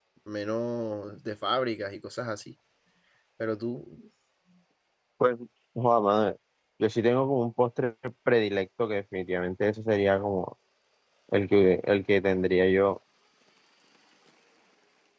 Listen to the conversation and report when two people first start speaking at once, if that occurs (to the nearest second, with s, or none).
none